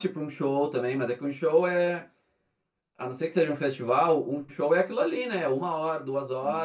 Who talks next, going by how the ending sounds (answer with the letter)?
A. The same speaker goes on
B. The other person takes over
A